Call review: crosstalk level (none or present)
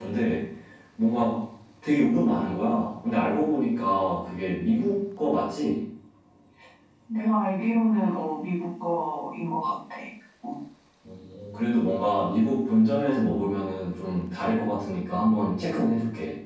none